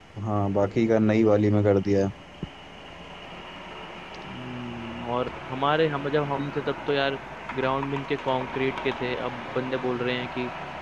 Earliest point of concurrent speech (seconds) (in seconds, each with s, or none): none